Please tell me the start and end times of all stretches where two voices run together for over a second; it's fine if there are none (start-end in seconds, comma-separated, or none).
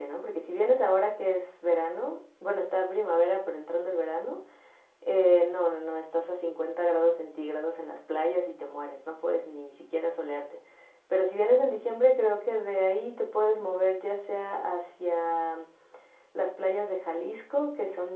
none